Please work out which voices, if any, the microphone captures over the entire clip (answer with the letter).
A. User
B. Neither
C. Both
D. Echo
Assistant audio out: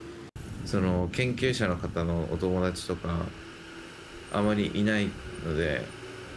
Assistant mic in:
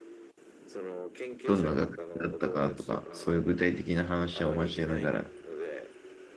C